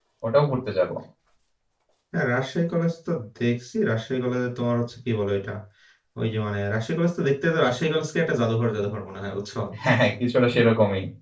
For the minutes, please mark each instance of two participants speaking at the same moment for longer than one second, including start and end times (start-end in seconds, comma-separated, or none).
none